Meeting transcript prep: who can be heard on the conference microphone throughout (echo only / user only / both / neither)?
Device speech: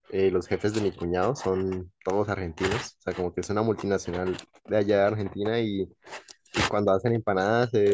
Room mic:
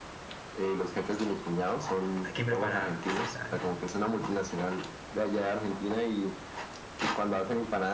both